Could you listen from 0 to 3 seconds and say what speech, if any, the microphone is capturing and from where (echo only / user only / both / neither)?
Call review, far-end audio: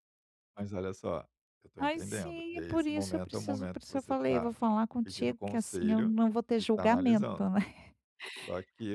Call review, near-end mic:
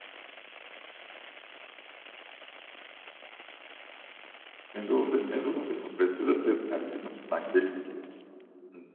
neither